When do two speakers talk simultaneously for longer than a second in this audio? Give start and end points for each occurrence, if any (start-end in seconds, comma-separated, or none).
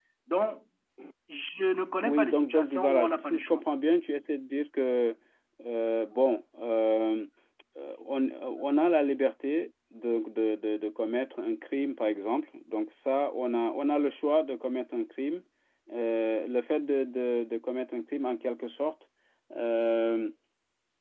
2.0-3.6